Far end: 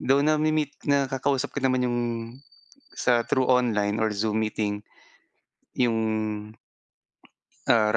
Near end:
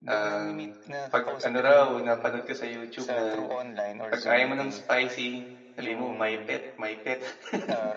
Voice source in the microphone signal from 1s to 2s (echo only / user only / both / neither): both